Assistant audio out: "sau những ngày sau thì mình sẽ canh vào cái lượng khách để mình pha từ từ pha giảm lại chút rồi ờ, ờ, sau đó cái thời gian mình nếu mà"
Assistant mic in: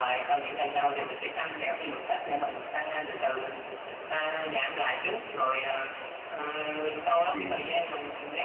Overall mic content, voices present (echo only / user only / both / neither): both